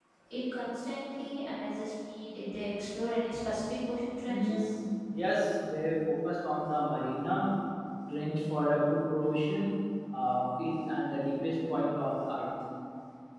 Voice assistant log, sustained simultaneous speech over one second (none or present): none